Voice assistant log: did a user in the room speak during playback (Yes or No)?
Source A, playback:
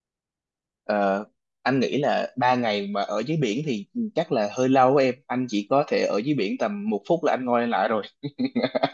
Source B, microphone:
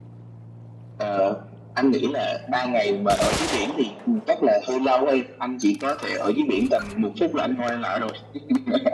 No